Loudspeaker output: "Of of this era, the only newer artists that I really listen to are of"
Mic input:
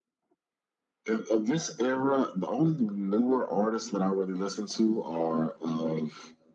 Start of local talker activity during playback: none

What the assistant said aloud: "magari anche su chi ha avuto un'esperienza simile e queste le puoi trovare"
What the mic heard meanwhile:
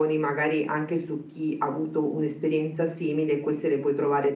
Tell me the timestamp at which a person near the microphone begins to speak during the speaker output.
none

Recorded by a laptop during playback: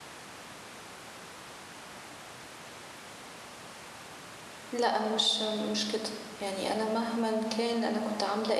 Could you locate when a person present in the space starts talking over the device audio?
4.7 s

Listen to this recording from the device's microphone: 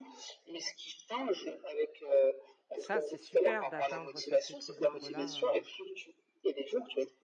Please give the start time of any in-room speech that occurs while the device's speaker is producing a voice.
2.7 s

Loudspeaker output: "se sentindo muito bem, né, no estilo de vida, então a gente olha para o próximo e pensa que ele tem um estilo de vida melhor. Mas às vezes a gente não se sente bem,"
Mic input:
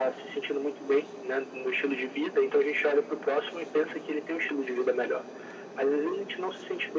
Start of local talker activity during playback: none

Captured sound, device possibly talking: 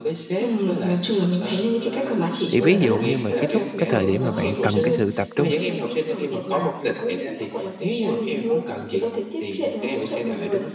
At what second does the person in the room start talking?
2.5 s

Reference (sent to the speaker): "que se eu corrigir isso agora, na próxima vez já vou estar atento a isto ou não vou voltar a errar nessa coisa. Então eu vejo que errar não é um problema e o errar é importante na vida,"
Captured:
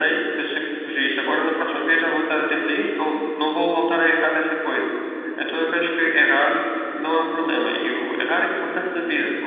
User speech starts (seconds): none

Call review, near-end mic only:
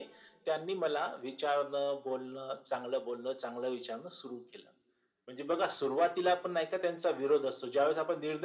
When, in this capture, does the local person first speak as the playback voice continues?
none

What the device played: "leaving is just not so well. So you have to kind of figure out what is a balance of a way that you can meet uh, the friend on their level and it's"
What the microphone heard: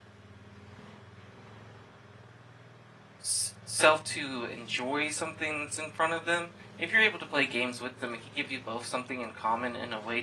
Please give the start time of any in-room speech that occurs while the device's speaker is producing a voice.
3.2 s

